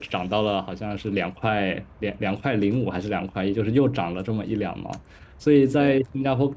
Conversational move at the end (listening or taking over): listening